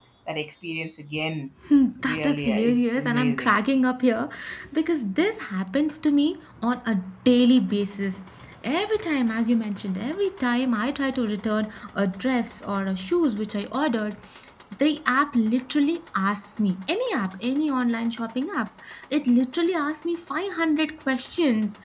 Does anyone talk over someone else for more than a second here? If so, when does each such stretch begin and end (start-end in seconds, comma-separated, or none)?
2.1-3.6